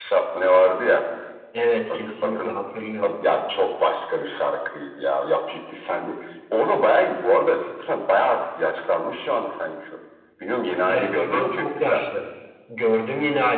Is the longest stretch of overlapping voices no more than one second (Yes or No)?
No